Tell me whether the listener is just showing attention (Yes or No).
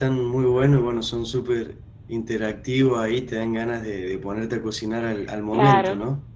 No